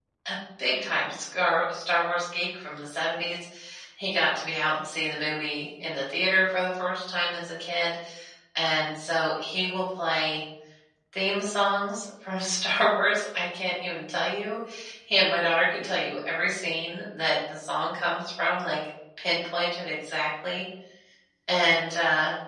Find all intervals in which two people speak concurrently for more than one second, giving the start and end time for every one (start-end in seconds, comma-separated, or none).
none